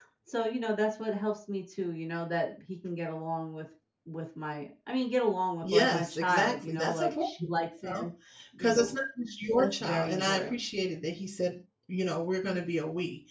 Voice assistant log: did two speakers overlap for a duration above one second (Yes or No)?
Yes